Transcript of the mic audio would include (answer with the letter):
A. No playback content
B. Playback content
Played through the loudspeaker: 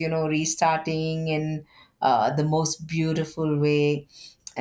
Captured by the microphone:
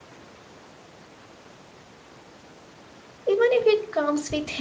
A